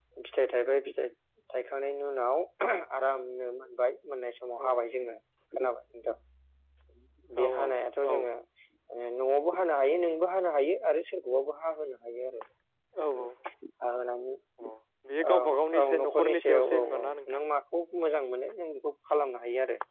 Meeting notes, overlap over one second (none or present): present